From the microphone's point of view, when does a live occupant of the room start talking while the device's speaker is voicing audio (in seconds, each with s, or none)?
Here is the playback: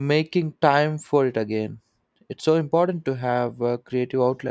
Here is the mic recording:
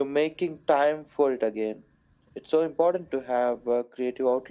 none